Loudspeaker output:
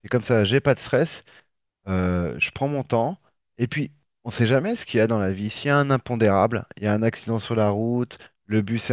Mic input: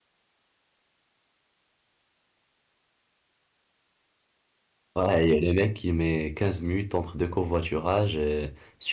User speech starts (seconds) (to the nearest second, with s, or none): 5 s